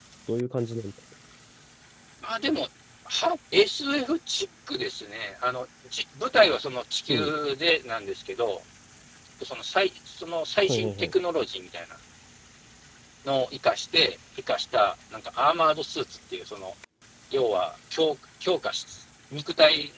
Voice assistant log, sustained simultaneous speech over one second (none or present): none